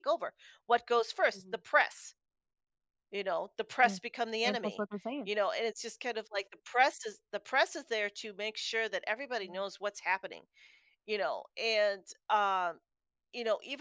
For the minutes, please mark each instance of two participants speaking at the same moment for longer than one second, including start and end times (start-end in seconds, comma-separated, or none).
none